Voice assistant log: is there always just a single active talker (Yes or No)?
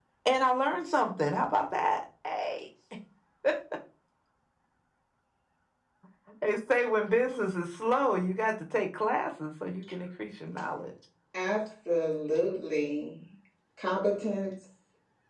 Yes